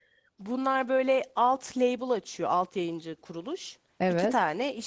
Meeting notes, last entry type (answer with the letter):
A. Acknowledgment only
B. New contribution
A